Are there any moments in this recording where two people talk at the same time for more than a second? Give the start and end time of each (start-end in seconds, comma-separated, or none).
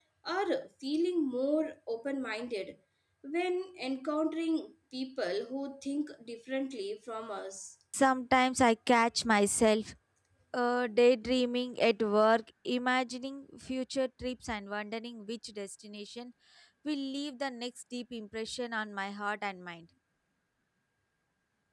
none